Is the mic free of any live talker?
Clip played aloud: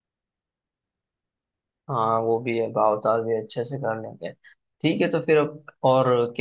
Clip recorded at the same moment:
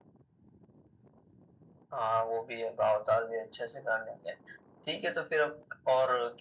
Yes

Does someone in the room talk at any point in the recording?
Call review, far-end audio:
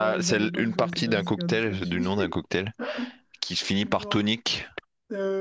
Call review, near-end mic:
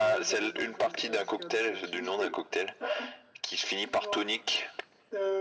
No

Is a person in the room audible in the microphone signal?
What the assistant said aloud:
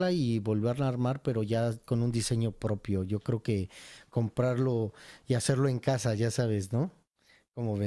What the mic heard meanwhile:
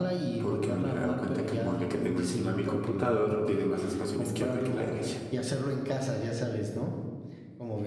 Yes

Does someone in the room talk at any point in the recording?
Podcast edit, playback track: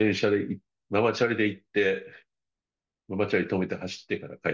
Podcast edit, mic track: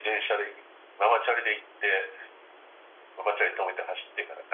No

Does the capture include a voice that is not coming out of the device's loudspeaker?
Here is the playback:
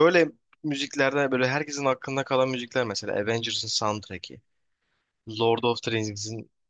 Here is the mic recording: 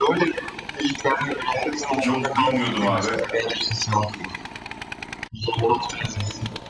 Yes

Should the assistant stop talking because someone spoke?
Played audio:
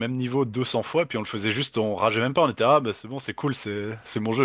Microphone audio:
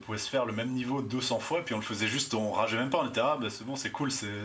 No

